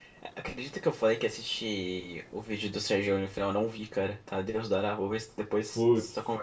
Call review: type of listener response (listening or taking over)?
taking over